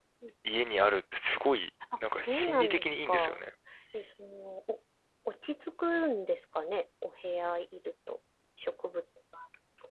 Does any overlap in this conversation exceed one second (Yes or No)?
Yes